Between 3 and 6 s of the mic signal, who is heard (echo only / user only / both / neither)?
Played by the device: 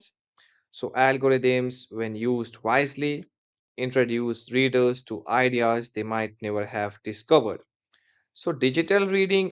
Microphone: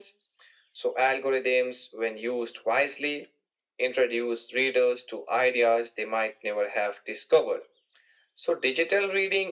echo only